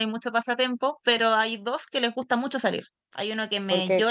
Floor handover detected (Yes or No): No